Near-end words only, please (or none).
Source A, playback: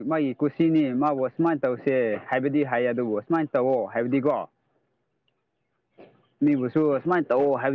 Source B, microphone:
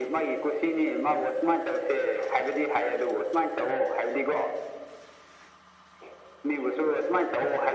none